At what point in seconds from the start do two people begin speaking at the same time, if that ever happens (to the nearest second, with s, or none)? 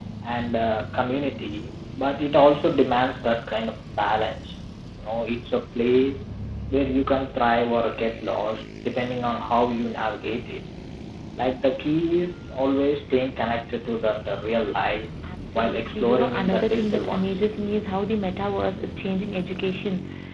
16 s